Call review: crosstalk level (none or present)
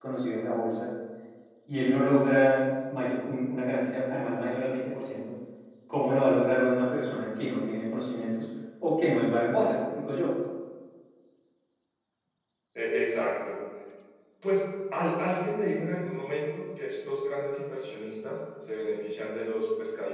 none